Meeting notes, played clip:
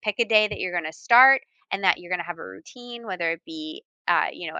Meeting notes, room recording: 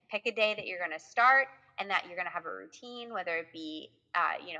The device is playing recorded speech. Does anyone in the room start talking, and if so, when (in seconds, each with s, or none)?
none